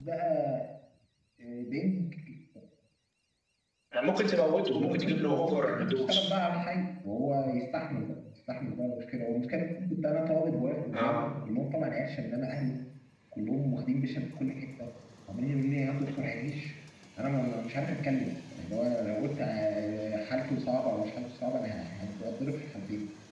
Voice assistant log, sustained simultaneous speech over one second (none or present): present